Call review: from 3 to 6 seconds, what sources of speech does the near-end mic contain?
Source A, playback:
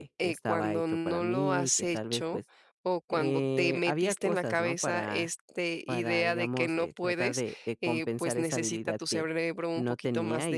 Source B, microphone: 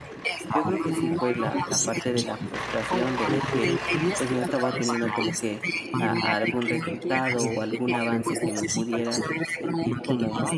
both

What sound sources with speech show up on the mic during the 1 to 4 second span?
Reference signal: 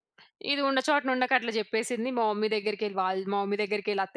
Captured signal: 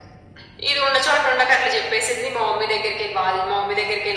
echo only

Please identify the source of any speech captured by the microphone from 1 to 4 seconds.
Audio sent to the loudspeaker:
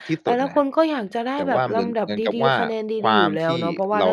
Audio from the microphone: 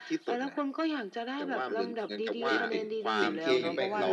both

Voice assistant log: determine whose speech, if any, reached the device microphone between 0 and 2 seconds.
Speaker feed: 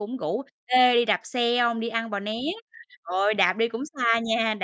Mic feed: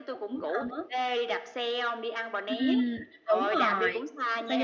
both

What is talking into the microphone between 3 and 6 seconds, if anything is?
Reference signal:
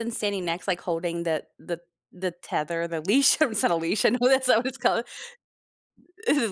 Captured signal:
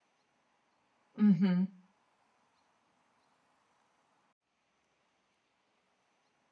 neither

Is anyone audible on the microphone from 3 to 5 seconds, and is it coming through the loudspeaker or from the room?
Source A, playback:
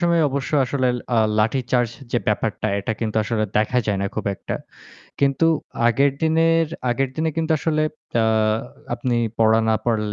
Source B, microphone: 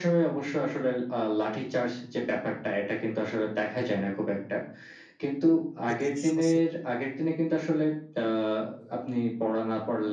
echo only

